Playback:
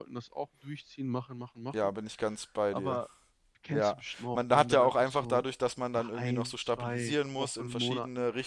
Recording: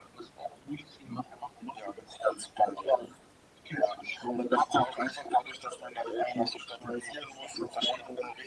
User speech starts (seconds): none

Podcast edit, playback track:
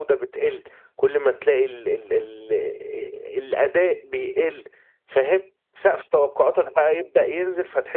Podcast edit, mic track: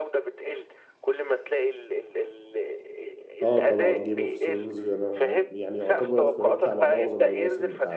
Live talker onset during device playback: 3.4 s

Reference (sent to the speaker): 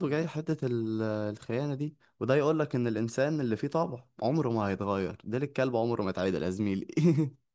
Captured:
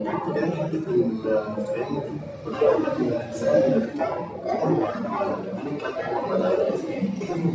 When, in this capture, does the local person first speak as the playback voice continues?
none

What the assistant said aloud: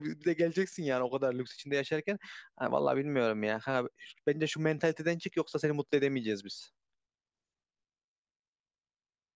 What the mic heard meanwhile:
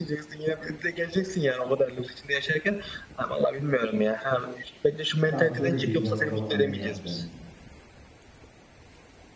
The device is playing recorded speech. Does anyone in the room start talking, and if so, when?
5.3 s

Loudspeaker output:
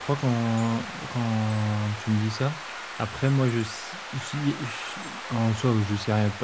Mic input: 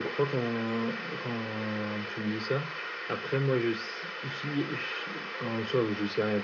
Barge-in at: none

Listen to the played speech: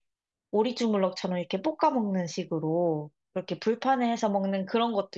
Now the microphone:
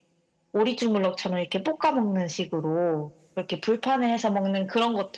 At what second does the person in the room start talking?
none

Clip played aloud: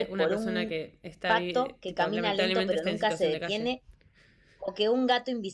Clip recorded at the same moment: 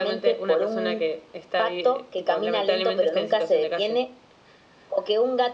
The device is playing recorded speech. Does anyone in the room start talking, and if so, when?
none

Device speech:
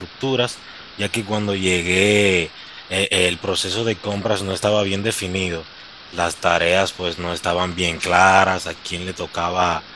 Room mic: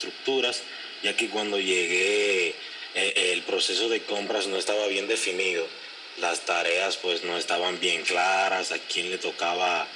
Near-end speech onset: none

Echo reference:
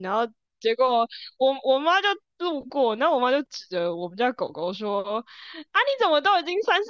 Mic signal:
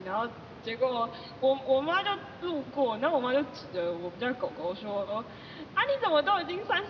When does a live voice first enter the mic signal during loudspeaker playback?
none

